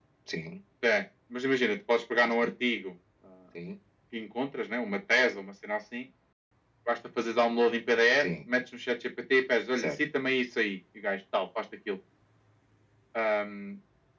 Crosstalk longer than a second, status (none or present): none